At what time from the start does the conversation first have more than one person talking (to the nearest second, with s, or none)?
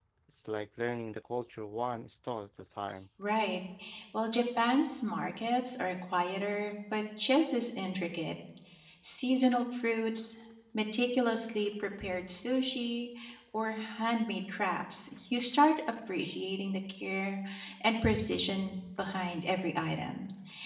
none